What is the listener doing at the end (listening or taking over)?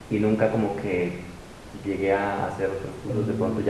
listening